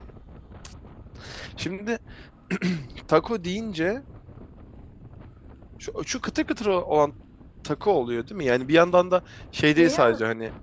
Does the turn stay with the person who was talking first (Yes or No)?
Yes